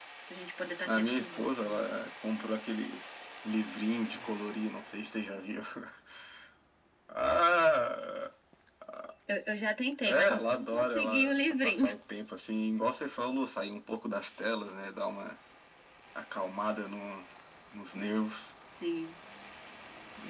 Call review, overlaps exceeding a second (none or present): present